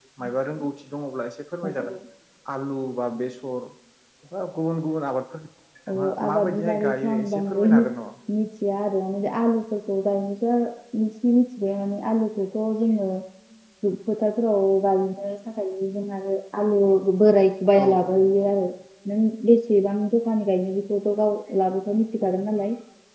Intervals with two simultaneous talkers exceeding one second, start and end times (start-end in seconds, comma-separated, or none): 5.9-7.7